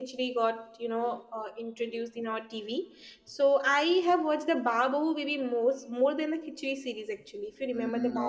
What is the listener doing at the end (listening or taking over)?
taking over